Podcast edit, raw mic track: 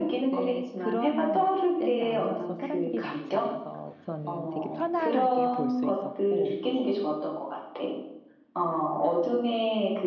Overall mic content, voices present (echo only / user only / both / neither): both